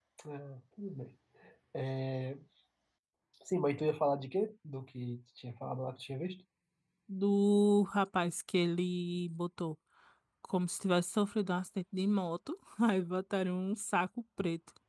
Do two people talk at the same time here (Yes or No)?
No